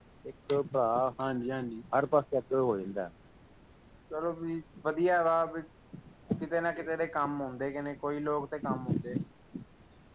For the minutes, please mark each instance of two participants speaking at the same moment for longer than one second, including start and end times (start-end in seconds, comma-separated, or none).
none